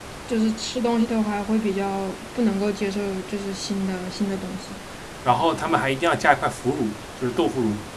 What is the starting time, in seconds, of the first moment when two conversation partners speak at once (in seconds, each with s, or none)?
none